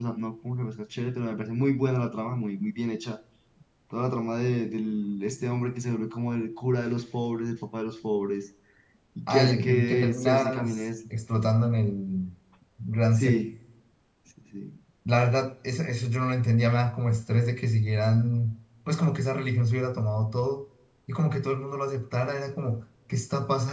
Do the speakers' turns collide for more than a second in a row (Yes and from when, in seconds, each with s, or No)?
Yes, from 9.3 s